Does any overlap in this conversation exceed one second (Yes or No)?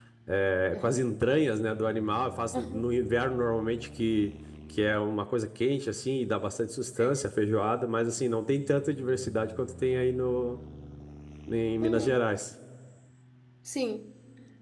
No